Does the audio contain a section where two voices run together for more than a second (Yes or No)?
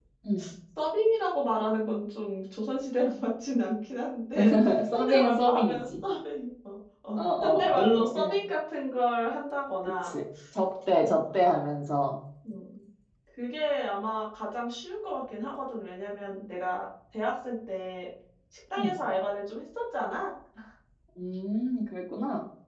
Yes